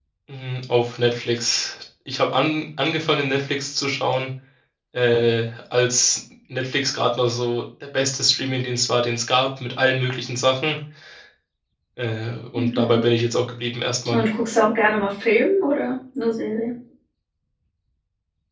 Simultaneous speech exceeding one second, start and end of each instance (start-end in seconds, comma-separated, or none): none